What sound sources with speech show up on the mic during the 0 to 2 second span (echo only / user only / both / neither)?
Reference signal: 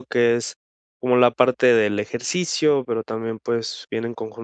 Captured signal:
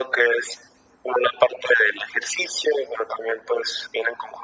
echo only